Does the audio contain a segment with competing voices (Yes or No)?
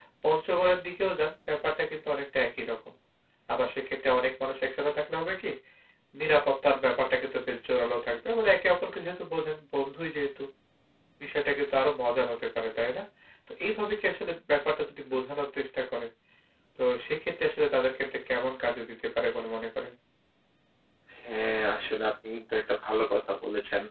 No